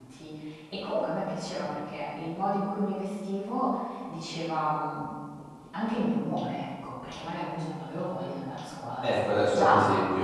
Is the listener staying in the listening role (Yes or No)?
No